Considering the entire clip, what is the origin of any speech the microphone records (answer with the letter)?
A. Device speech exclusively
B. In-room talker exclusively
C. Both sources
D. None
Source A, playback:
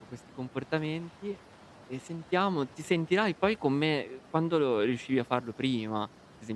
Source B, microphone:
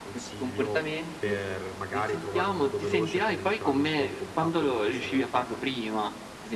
C